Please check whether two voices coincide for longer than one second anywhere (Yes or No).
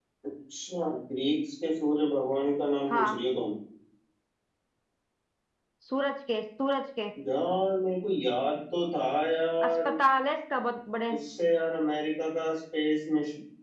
No